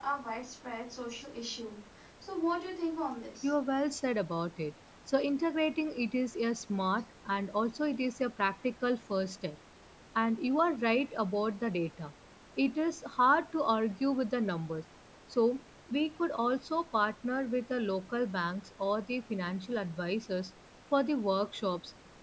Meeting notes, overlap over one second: none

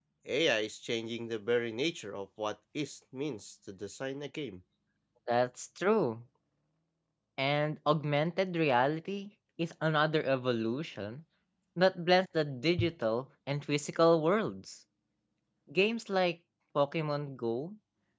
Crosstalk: none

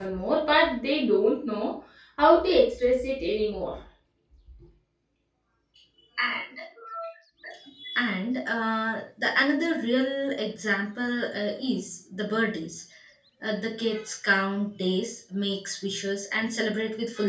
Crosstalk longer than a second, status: none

